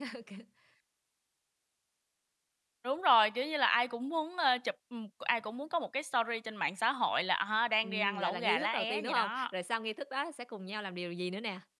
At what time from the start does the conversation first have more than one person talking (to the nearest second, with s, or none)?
8 s